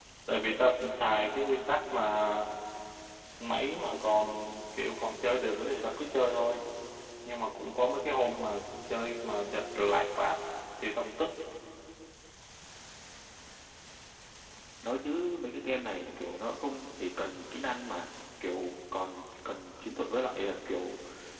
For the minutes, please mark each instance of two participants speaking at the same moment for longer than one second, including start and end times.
none

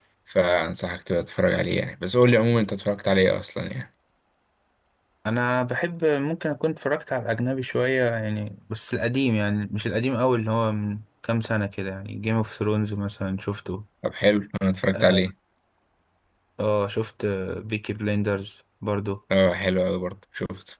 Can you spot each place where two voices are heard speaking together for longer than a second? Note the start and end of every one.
none

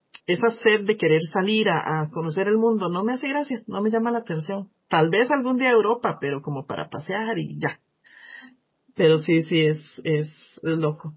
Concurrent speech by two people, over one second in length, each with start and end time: none

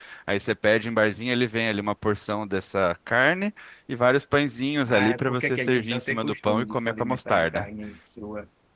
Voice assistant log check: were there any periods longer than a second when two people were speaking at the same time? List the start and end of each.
4.9-7.7

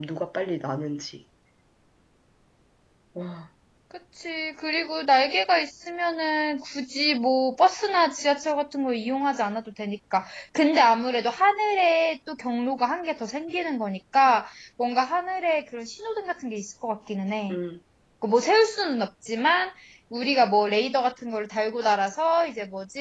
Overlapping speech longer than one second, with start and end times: none

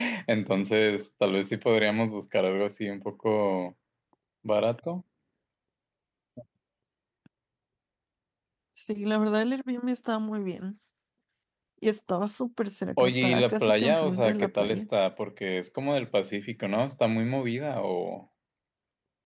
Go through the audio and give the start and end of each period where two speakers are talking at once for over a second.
13.0-14.8

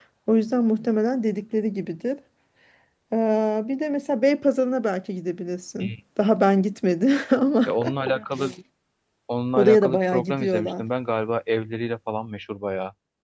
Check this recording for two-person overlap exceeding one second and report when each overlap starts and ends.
9.6-10.8

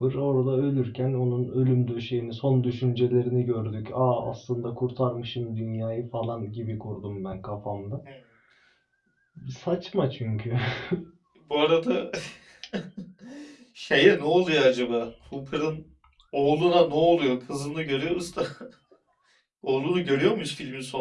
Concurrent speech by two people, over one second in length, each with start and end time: none

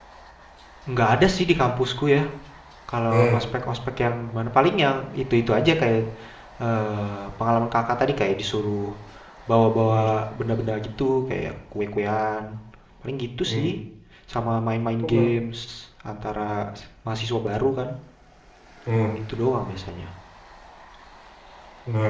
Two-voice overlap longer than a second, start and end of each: none

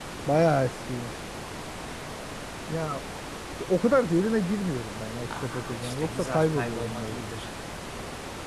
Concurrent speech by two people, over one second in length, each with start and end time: 5.4-7.2

